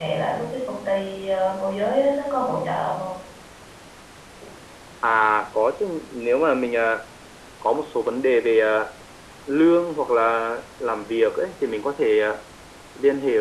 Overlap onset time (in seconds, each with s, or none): none